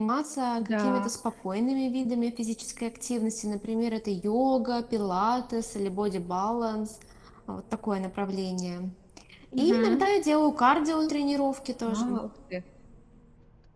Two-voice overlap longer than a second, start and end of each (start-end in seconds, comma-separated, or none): none